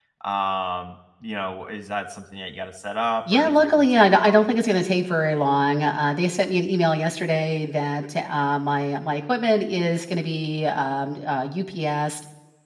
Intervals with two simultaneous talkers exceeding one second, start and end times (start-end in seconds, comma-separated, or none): 3.3-4.5